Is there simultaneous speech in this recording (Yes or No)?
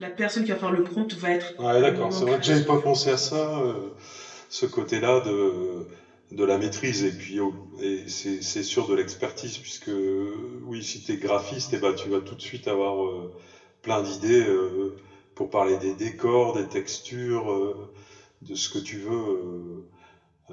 Yes